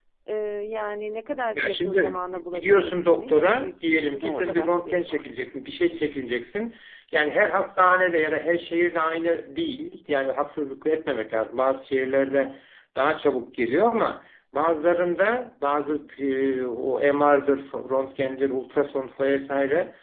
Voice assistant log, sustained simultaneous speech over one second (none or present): present